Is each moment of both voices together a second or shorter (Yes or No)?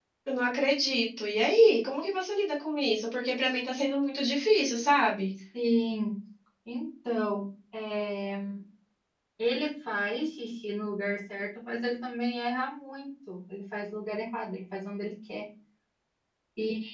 Yes